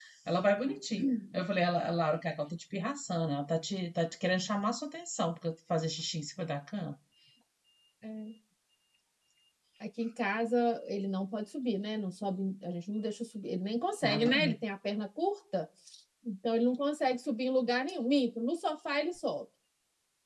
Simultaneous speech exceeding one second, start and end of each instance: none

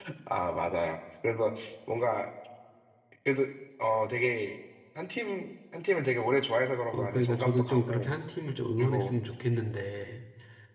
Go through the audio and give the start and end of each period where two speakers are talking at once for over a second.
6.9-8.2

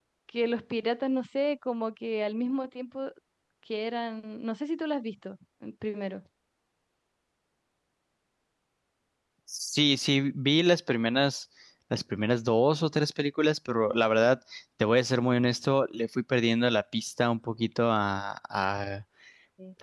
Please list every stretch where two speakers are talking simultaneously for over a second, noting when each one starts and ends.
none

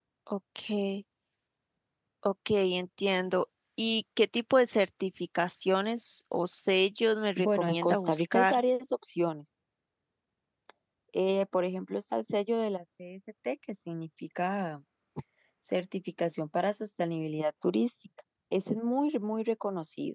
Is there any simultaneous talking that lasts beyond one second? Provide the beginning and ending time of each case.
7.4-8.6

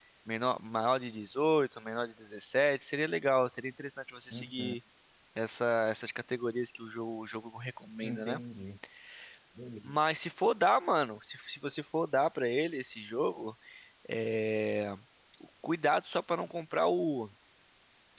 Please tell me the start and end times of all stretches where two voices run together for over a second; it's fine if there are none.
none

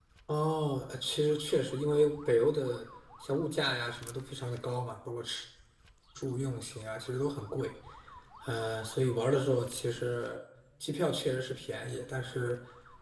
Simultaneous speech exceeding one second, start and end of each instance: none

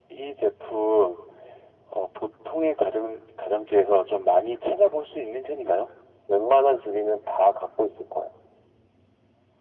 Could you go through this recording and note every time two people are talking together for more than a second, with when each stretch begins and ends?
none

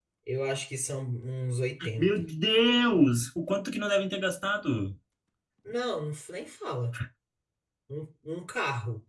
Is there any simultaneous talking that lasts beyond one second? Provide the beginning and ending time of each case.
none

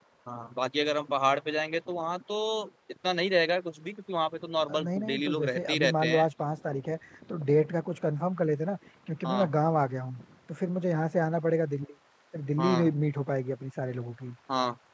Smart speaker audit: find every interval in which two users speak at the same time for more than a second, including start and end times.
4.7-6.3

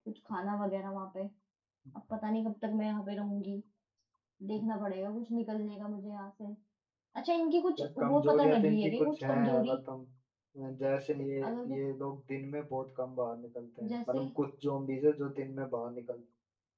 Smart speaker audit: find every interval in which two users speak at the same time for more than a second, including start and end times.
7.8-9.8

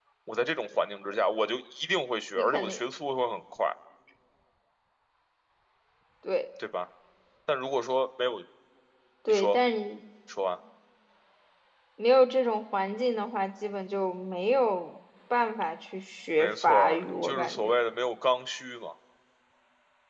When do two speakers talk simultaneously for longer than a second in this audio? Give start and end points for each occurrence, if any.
16.4-17.7

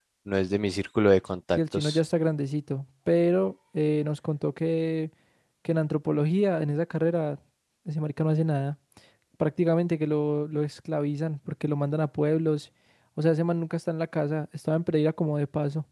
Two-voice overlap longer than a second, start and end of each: none

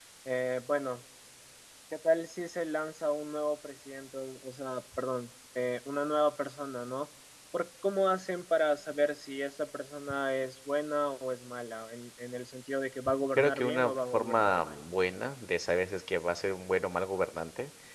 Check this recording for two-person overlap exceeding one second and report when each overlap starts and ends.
13.4-14.8

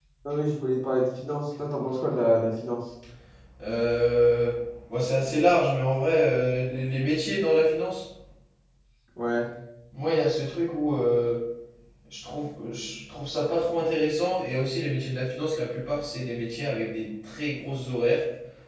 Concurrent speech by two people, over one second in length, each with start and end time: none

